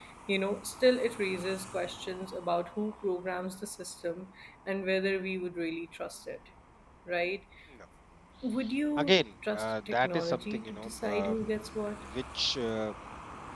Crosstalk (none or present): present